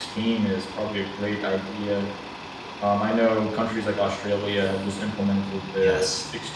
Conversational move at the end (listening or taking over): listening